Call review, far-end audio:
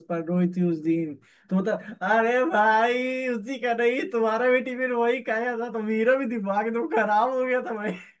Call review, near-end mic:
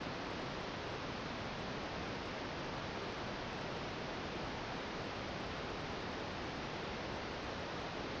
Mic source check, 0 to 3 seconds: neither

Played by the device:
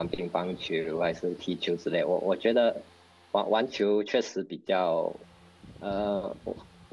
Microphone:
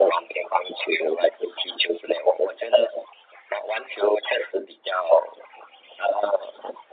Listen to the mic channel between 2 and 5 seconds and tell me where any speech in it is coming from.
echo only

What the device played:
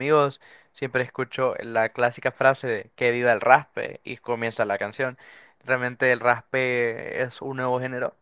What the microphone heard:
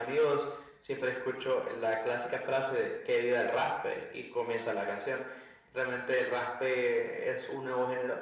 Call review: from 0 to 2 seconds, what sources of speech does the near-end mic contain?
echo only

